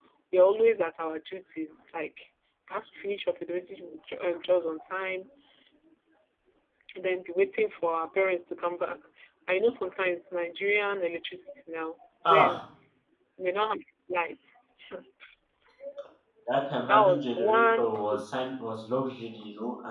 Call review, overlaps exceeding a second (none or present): present